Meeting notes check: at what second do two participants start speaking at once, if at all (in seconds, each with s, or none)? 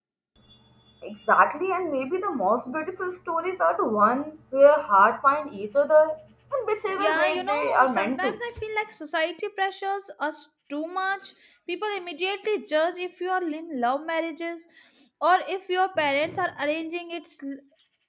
6.9 s